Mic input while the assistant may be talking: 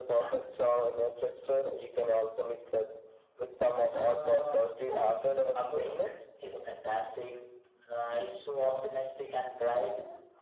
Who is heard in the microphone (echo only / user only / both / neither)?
echo only